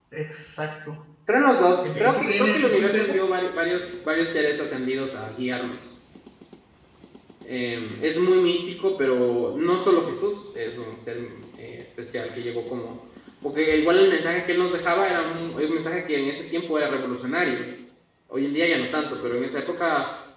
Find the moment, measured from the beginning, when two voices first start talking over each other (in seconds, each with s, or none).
1.8 s